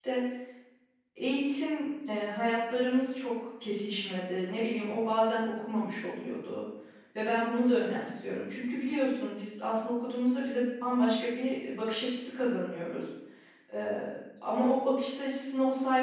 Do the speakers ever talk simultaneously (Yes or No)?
No